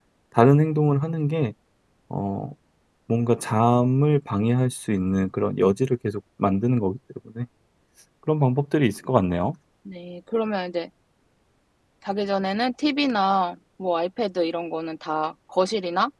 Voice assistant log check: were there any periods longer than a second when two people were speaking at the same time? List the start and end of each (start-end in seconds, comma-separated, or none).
none